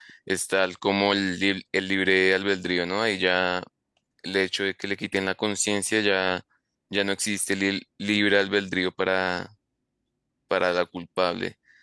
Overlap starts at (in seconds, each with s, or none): none